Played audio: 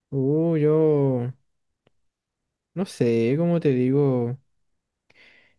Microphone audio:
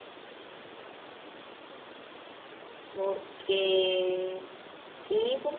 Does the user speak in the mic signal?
Yes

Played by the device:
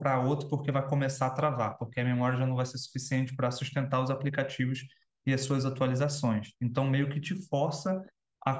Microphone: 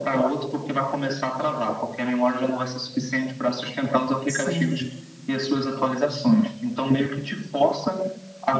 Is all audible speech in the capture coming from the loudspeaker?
No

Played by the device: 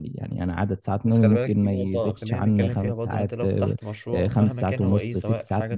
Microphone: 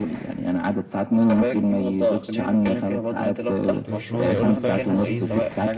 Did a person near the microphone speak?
Yes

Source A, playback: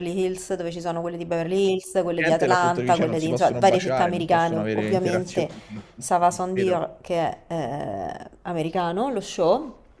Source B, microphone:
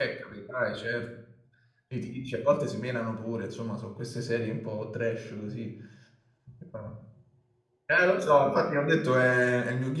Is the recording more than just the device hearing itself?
Yes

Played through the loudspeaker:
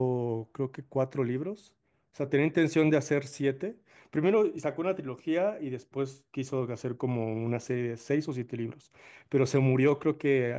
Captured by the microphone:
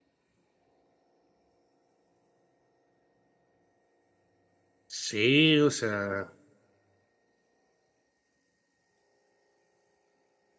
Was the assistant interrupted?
Yes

